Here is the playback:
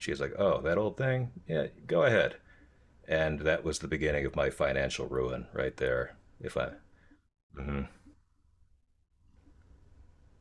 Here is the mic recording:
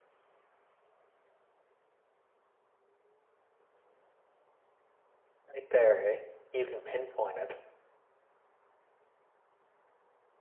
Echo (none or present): none